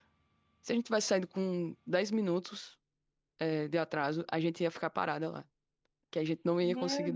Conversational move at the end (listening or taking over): taking over